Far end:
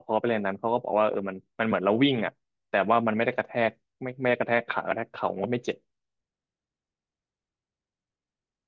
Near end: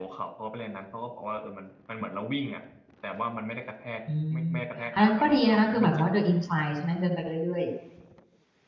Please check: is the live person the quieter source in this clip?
No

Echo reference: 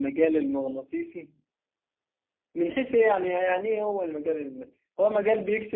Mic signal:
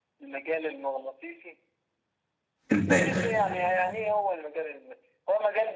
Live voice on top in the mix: Yes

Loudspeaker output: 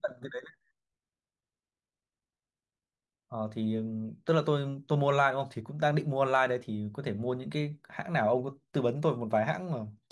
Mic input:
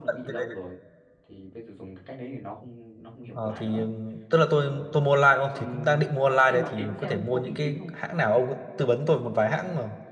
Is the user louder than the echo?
No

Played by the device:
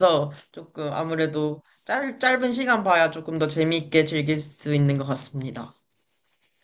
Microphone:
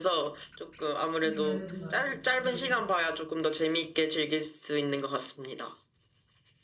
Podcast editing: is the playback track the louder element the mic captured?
Yes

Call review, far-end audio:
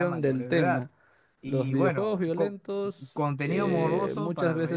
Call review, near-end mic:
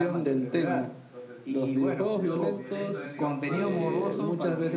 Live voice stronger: No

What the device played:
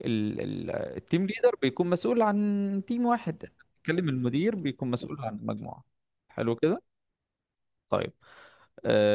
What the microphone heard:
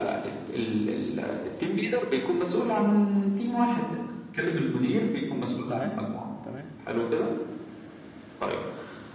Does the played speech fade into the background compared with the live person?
No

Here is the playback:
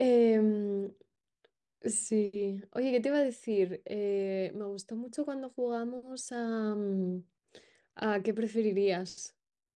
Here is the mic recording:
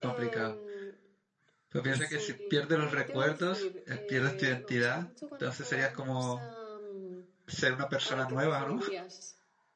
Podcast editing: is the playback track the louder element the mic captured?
No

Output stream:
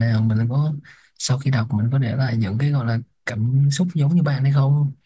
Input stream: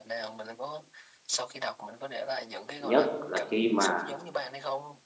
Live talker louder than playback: Yes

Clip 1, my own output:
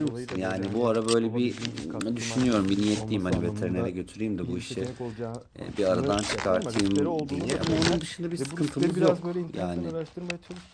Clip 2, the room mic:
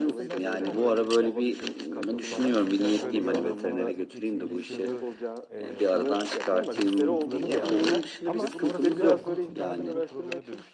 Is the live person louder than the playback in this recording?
No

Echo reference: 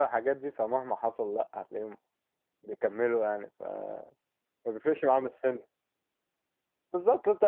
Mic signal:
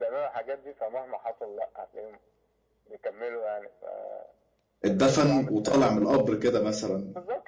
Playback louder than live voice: No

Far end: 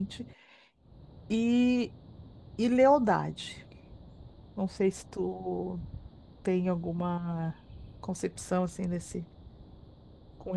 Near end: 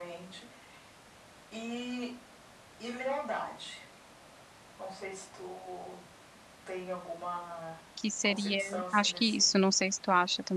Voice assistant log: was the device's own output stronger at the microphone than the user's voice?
No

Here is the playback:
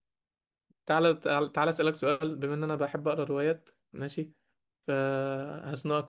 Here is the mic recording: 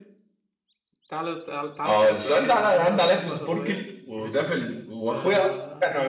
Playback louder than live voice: No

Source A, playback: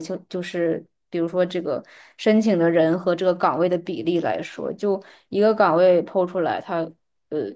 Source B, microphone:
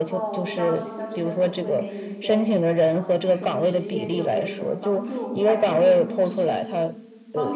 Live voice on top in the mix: No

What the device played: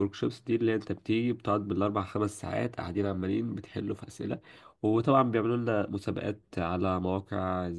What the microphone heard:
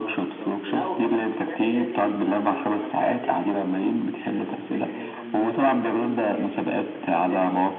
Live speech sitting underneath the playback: Yes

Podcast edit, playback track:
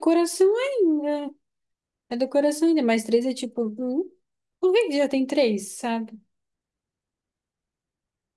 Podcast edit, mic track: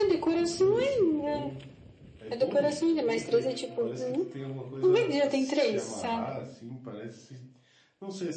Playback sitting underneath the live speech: No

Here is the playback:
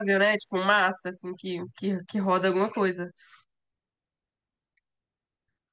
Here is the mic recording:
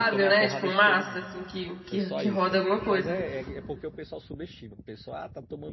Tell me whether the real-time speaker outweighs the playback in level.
No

